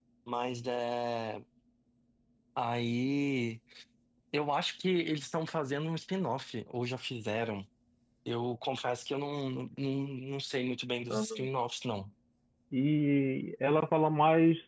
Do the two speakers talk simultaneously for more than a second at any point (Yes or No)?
No